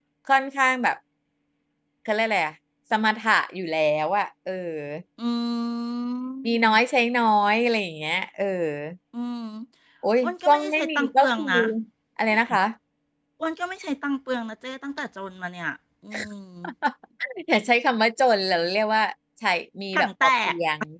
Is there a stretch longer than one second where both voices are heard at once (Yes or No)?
Yes